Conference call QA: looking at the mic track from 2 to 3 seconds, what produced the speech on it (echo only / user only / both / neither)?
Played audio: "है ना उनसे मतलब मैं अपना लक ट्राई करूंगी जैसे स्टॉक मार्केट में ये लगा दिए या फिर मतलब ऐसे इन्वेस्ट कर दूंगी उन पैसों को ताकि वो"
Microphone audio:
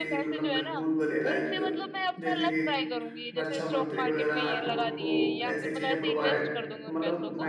both